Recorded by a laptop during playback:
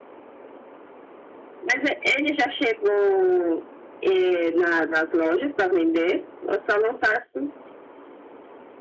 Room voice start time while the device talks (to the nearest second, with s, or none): none